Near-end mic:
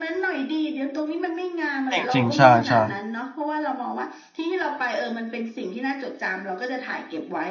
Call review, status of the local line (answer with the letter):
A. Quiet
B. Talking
B